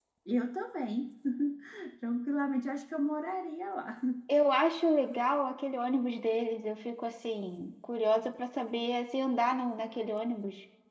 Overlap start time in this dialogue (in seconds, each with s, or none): none